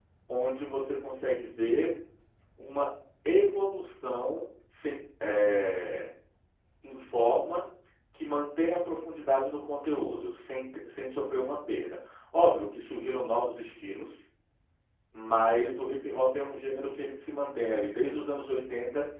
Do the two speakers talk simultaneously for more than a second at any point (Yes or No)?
No